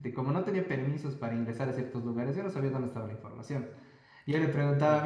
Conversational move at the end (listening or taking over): listening